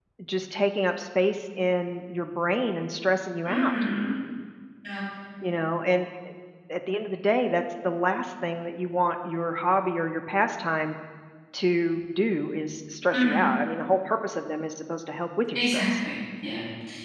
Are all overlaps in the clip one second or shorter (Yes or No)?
Yes